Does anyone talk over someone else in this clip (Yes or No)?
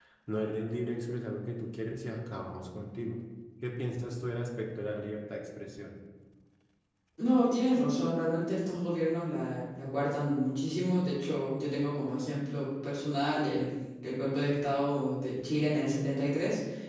No